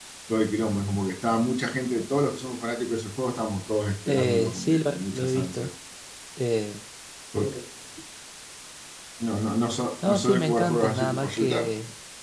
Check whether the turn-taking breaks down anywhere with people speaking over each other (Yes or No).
Yes